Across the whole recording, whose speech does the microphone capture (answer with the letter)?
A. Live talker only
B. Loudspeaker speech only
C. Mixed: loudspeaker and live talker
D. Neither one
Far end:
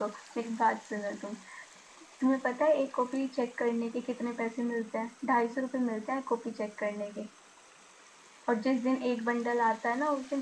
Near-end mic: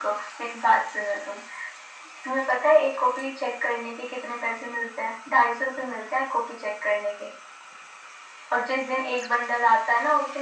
B